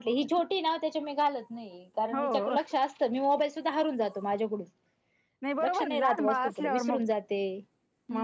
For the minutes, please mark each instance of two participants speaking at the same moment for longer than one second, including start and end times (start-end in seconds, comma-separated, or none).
5.6-7.0